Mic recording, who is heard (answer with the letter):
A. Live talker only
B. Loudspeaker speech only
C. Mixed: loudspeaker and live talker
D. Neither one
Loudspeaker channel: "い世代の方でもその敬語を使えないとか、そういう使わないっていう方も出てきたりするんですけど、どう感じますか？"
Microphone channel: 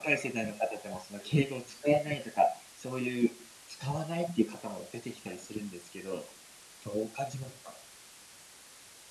B